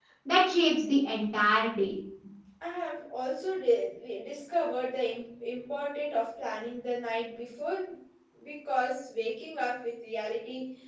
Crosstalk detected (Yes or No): No